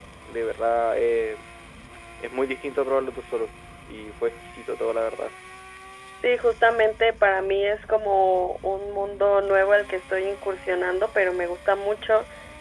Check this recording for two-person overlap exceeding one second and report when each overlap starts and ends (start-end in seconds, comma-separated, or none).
none